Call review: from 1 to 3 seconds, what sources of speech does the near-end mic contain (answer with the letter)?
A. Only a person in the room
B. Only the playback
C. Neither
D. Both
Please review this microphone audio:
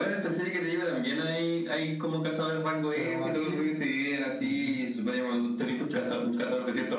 B